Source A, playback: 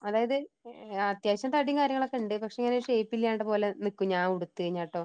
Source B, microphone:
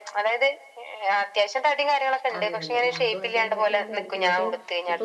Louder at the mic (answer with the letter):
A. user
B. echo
B